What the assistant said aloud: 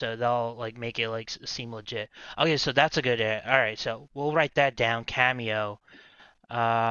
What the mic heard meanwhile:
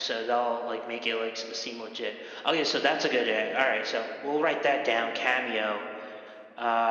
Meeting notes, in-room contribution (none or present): none